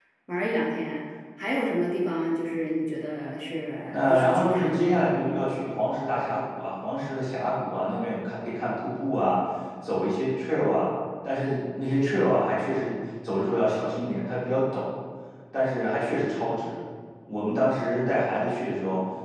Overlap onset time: 3.9 s

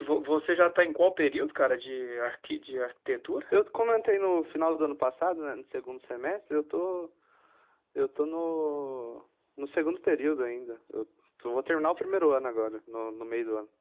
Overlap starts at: none

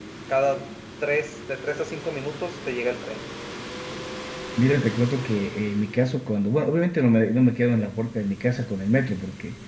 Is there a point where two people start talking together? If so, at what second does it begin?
none

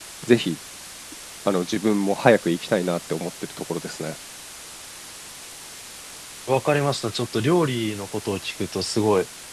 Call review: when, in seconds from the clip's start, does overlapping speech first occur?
none

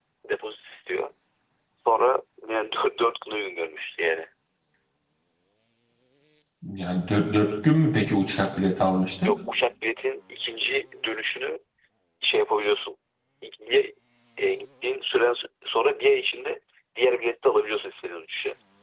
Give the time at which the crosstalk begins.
none

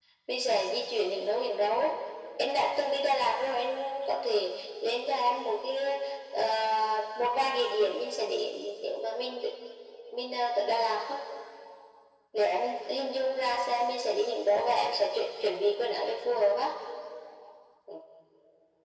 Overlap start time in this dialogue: none

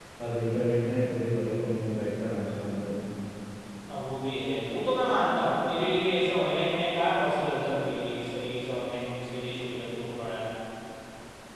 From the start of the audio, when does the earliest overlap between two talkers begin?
none

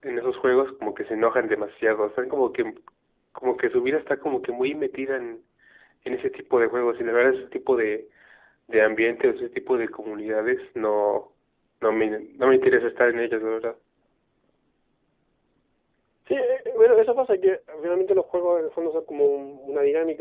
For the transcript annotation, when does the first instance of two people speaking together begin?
none

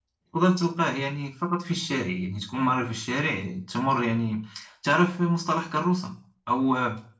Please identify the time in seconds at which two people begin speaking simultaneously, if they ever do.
none

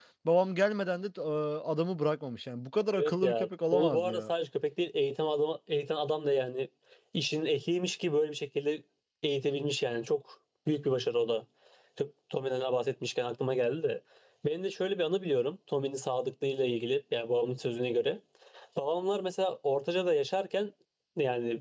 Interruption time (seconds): 2.9 s

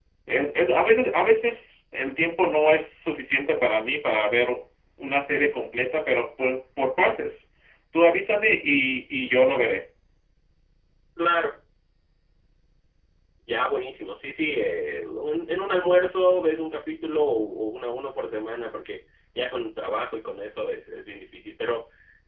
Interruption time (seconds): none

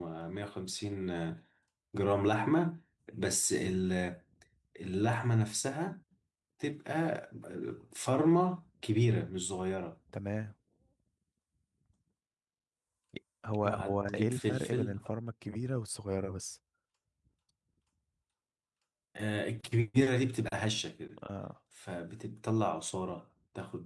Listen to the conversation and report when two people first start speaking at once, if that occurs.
13.6 s

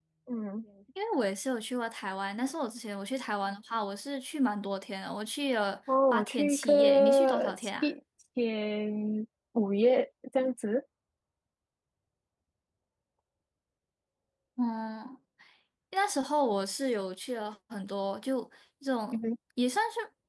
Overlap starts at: 6.1 s

